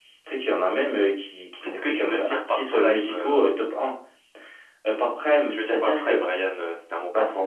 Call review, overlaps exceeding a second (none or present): present